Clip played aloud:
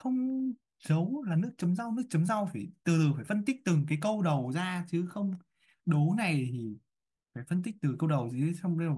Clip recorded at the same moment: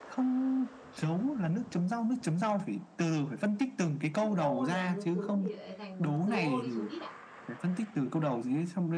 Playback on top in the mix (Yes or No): Yes